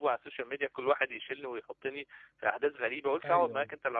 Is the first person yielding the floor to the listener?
No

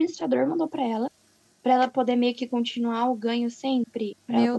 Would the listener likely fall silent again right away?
No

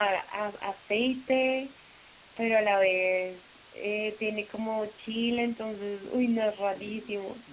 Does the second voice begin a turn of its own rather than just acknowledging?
Yes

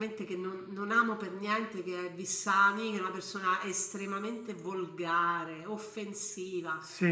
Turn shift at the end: No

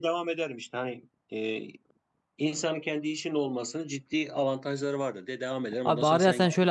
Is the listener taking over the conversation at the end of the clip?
Yes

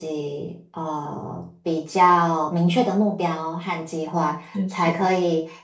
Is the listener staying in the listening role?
Yes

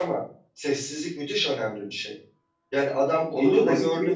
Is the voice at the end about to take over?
Yes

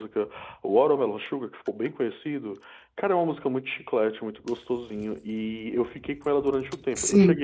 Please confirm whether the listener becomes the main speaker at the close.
No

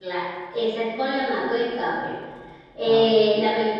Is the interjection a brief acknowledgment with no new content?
Yes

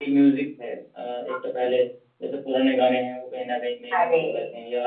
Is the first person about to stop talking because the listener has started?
No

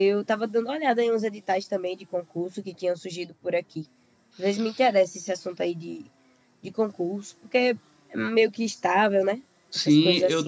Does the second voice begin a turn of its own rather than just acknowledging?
Yes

